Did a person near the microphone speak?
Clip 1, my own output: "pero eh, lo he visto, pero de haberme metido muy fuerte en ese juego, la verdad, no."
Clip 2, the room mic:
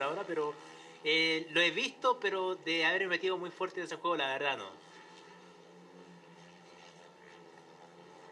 No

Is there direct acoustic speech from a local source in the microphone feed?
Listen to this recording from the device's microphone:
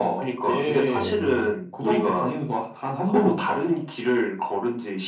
Yes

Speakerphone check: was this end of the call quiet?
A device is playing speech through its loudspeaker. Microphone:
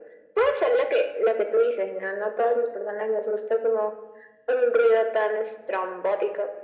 Yes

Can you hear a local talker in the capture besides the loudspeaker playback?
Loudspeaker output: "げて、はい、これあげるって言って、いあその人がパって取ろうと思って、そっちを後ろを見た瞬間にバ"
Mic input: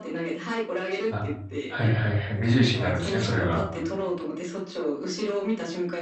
Yes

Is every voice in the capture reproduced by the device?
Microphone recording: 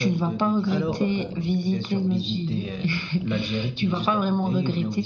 No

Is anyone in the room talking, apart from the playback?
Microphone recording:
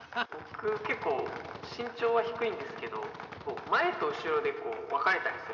No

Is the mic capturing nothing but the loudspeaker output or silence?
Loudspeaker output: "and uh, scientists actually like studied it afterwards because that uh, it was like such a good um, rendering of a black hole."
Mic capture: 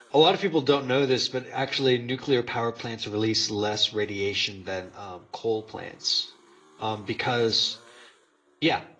No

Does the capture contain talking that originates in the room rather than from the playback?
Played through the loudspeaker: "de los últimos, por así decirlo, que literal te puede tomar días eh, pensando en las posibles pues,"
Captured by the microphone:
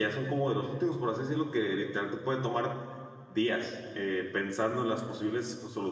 No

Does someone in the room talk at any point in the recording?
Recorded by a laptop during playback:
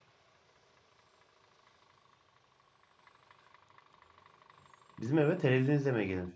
Yes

